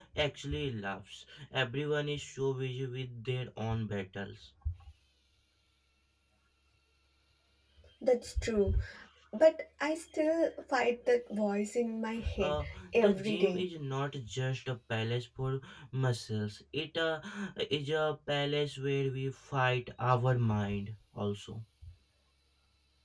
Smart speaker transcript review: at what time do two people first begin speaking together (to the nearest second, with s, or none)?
12 s